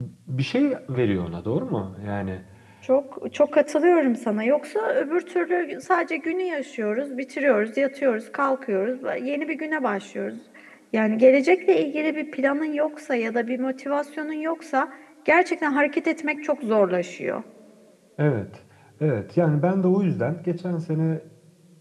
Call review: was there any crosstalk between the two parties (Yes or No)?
No